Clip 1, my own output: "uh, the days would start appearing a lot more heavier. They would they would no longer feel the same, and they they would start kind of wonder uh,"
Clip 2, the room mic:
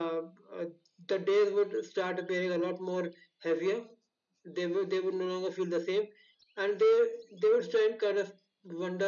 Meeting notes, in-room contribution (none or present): none